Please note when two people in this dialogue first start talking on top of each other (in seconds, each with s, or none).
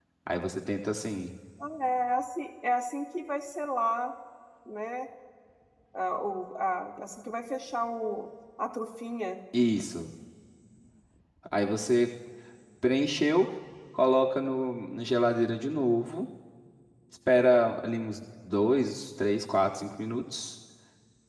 none